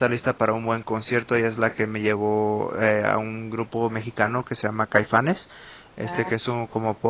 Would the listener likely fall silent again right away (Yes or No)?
Yes